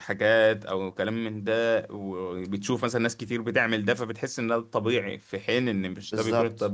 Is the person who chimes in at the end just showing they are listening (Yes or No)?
No